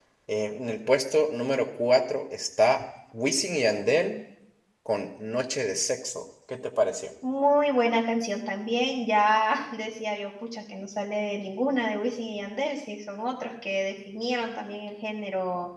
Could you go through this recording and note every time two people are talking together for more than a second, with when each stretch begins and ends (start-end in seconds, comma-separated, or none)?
none